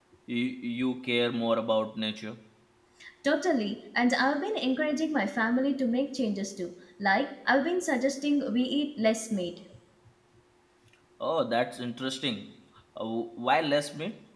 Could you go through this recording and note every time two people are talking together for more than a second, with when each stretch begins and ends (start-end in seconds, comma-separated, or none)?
none